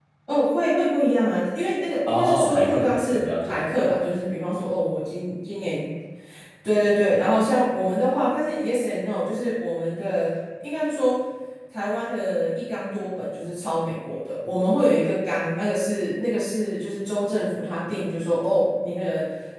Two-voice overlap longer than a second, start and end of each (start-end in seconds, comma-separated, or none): 2.0-4.0